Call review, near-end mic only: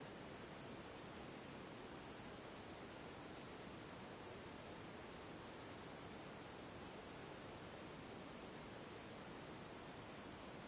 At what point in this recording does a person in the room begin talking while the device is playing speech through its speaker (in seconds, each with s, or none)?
none